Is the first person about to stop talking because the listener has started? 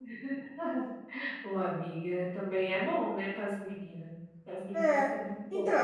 Yes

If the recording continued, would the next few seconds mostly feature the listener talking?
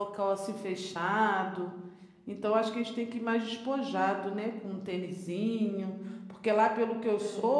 No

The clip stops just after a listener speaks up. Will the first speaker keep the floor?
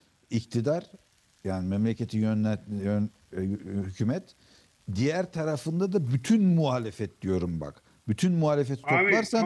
Yes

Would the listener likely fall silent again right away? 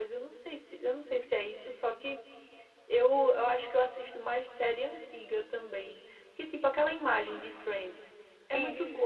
Yes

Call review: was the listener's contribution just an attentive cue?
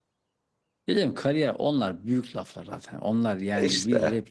Yes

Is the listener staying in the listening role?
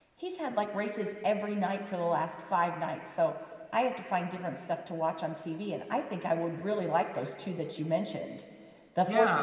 Yes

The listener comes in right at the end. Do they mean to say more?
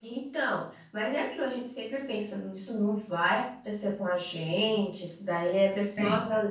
No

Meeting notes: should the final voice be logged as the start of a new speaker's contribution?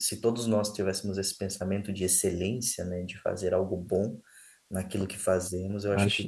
No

